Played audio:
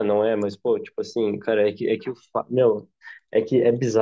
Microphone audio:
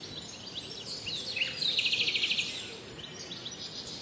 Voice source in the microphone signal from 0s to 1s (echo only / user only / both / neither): neither